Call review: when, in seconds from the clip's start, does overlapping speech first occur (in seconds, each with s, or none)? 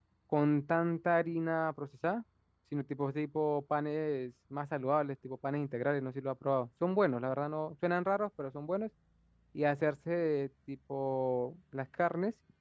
none